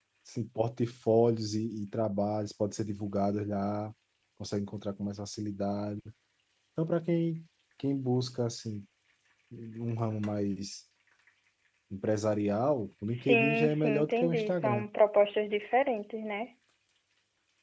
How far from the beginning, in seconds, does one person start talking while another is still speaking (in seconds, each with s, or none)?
13.1 s